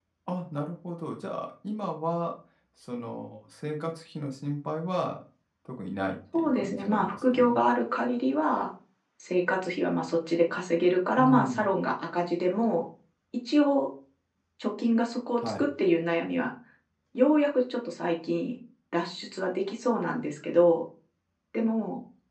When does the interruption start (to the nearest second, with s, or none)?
6 s